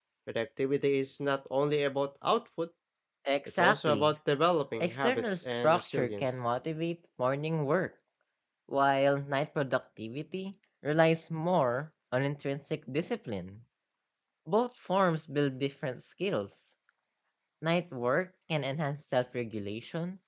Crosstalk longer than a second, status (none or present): present